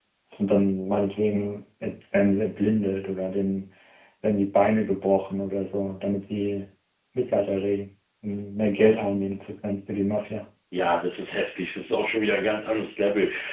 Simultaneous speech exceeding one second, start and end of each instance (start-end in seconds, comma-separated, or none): none